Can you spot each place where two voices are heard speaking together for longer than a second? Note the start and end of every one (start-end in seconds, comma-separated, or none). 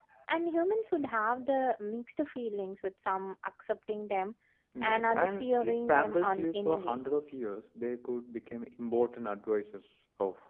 4.8-7.0